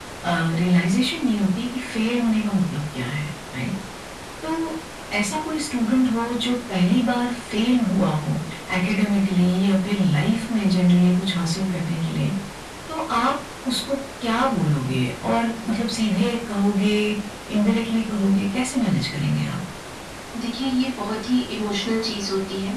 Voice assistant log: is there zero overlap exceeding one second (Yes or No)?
Yes